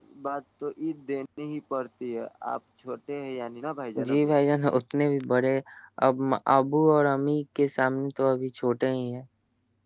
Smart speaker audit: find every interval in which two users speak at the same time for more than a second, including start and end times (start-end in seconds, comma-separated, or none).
none